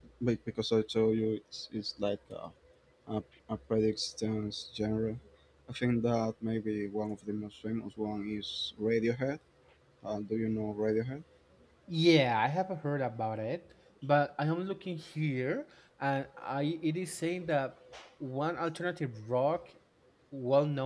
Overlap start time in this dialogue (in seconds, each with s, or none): none